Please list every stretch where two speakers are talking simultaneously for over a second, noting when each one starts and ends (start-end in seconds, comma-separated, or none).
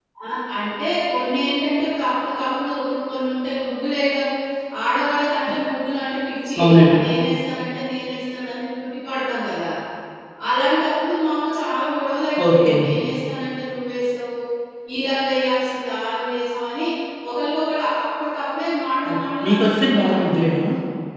19.1-20.3